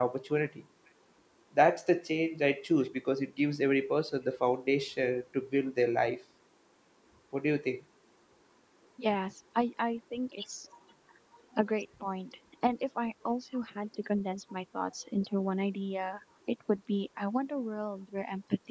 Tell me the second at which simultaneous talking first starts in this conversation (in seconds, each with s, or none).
none